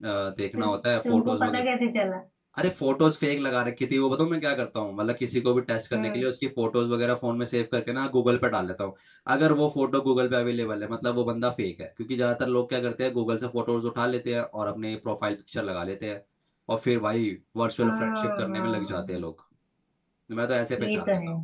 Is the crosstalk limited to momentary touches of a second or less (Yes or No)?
No